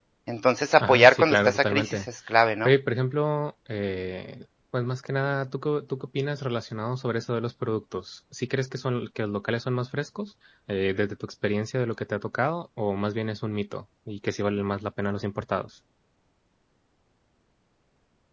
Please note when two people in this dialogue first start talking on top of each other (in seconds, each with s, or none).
0.8 s